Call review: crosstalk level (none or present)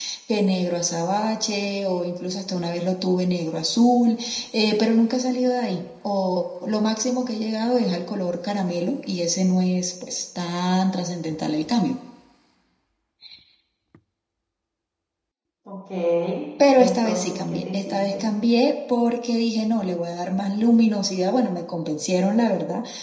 present